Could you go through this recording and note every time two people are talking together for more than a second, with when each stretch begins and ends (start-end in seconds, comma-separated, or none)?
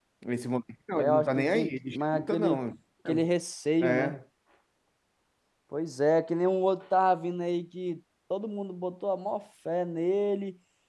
0.9-2.6